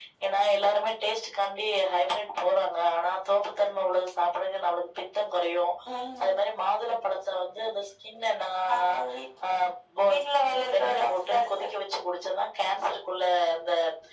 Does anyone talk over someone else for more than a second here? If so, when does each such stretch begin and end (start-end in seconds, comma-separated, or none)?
10.1-11.7